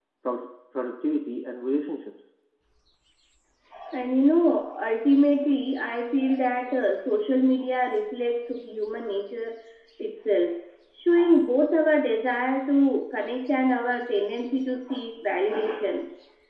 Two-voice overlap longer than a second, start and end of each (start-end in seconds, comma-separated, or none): none